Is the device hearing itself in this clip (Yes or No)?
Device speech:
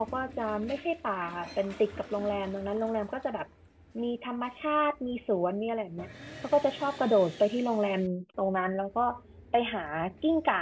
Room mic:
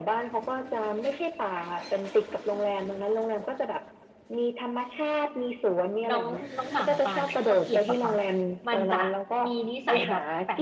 Yes